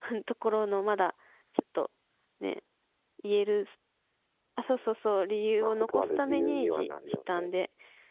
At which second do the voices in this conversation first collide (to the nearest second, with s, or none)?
6 s